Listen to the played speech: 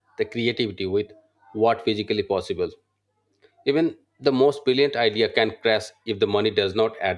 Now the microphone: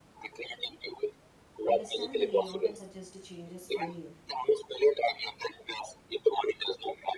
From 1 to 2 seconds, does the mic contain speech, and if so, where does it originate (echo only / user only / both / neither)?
both